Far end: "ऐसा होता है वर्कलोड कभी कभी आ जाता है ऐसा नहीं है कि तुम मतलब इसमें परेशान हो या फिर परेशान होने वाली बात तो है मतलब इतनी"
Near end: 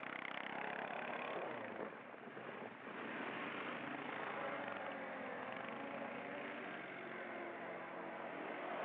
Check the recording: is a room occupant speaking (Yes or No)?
No